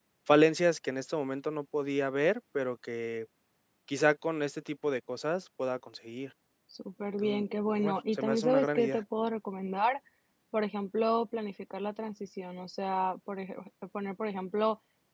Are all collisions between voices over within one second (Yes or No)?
No